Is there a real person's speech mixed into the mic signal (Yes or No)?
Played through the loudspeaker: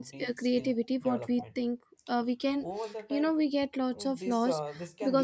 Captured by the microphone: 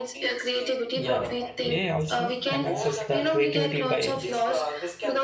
Yes